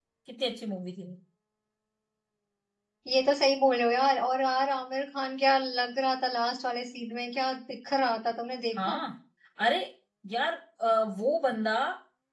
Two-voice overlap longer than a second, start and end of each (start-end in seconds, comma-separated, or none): none